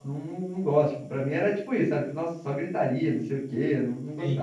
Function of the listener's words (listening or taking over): listening